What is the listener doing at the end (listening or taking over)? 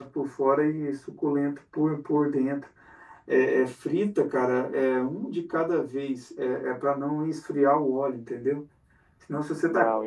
listening